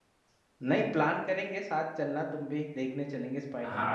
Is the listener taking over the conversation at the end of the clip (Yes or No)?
Yes